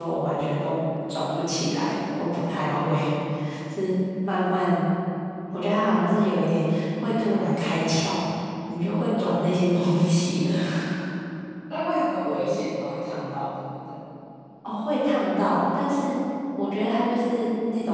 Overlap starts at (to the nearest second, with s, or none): none